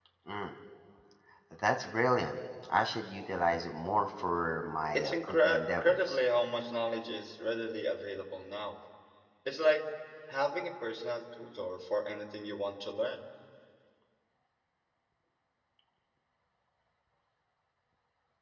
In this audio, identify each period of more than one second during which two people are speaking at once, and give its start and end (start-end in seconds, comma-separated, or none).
5.0-6.2